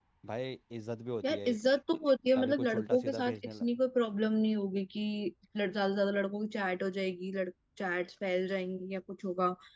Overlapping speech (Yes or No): Yes